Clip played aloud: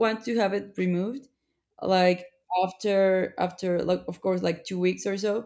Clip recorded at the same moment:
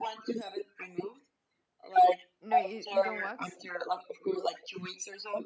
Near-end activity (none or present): present